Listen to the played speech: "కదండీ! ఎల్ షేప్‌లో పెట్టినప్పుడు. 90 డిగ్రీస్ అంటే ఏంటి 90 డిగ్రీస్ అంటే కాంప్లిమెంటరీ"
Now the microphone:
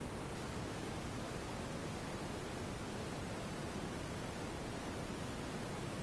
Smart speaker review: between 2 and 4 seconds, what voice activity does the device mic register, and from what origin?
neither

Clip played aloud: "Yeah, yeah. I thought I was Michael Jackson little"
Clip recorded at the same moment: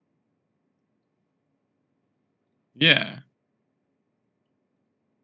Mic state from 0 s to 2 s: neither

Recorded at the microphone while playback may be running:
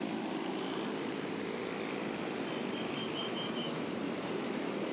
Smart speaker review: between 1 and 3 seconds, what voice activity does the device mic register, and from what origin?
neither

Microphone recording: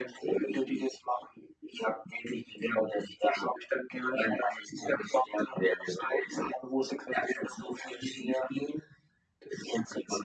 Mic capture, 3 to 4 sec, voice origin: echo only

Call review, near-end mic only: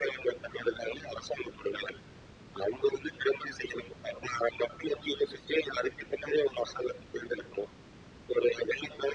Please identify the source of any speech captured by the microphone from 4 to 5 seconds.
echo only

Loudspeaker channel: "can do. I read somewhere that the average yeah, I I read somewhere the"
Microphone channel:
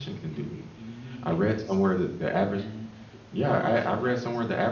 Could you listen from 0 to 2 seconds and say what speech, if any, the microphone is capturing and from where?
both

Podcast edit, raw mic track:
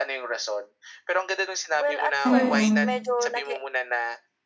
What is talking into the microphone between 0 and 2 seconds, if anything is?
echo only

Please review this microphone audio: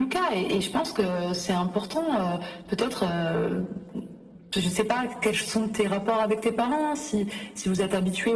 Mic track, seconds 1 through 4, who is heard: echo only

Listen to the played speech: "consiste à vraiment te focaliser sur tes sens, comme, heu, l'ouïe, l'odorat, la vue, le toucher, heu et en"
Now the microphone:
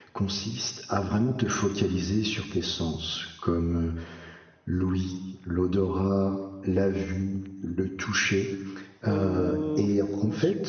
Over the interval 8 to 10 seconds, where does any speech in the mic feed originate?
both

